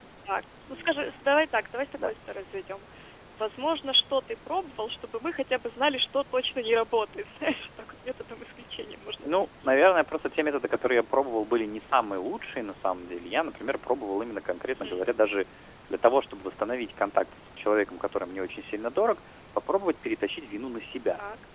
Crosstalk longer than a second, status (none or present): none